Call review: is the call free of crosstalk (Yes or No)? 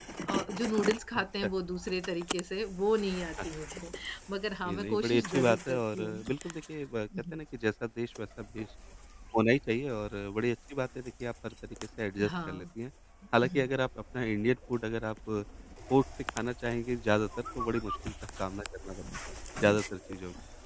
No